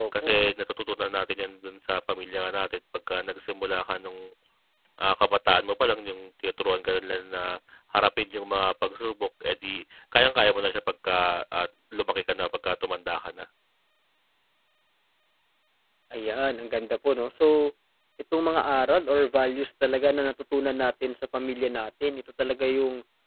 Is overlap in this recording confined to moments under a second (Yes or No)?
Yes